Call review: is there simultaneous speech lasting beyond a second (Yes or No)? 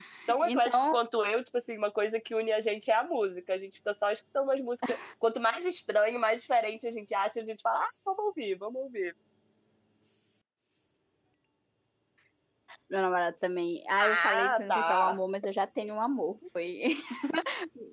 Yes